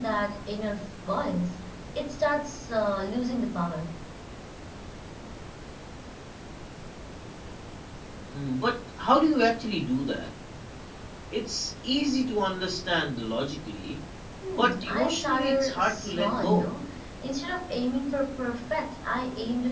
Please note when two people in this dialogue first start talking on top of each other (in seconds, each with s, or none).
14.6 s